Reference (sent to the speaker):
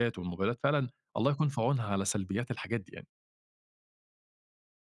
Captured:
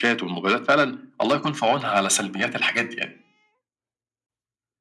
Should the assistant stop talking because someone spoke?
No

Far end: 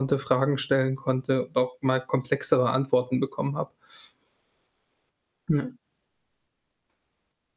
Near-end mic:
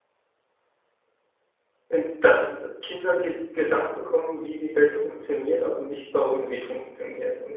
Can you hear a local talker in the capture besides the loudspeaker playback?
Yes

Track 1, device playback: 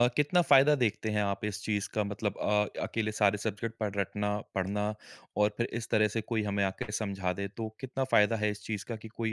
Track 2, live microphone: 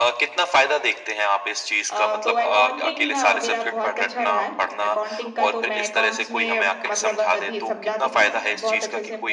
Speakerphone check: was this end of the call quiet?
No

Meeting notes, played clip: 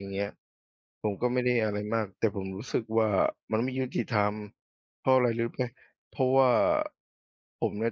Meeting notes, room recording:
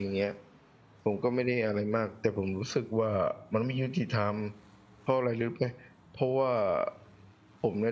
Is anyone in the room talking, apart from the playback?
No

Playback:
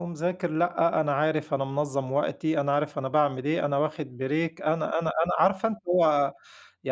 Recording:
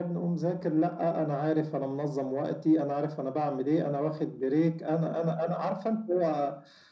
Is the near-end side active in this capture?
No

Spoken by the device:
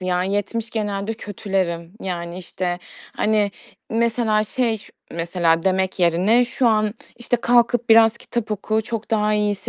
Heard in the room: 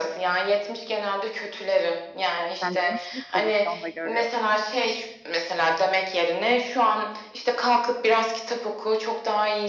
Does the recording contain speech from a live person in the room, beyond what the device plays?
Yes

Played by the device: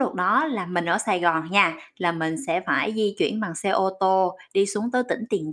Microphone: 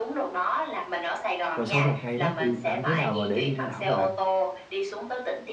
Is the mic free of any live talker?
No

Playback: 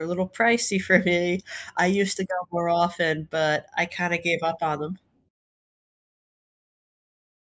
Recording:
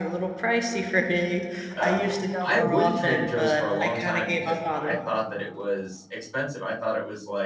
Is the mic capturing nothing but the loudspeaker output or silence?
No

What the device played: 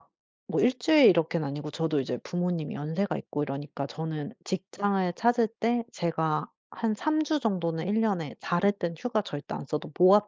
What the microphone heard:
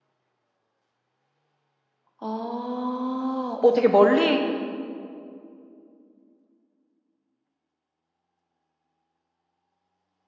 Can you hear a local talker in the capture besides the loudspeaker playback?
Yes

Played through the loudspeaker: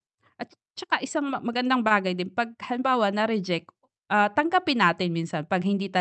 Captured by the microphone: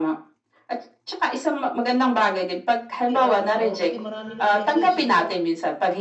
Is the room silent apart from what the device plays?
No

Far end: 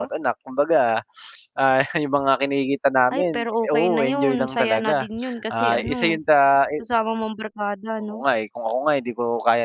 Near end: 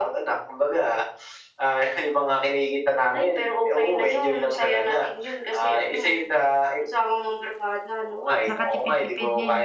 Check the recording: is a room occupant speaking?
Yes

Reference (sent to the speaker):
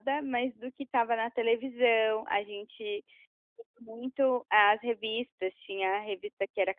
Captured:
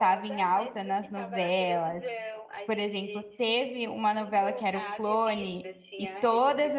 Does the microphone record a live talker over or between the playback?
Yes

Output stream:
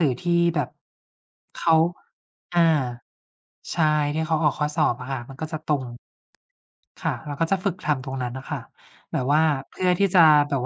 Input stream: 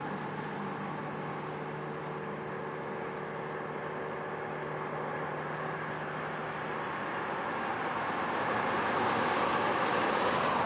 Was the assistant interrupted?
No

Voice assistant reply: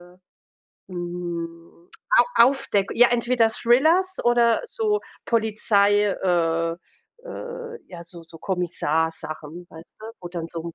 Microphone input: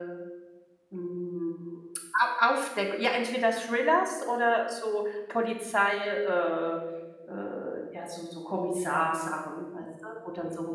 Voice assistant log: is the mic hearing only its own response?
Yes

